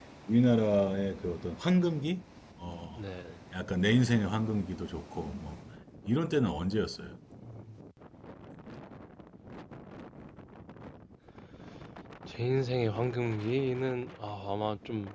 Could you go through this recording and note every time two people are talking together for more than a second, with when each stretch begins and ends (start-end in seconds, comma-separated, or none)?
none